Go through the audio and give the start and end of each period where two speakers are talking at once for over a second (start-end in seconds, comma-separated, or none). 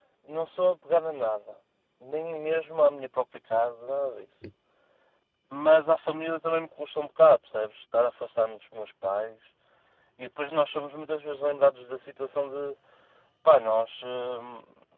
none